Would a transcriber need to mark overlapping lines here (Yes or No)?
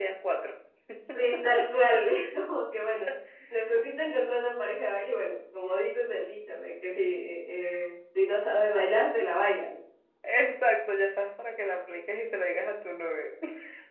No